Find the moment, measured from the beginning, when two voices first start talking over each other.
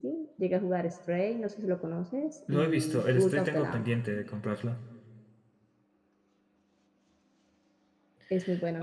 2.5 s

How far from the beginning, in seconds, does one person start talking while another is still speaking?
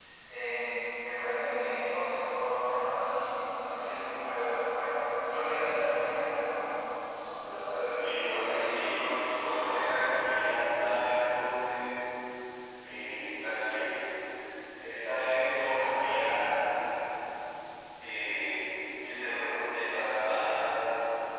7.9 s

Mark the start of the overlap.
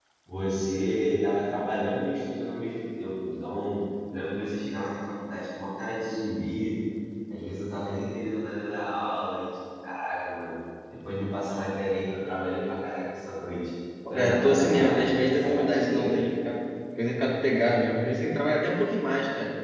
14.1 s

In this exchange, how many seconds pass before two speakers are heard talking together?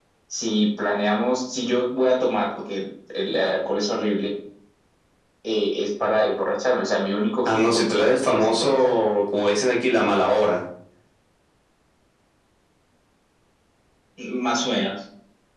7.5 s

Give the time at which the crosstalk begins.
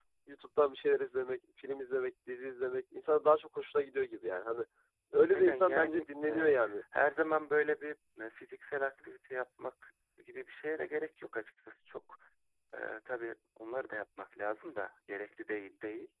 5.3 s

